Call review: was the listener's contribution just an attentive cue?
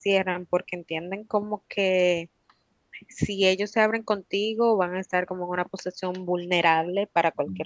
No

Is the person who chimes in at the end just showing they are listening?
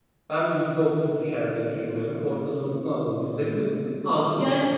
No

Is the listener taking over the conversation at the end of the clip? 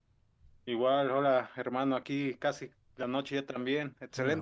Yes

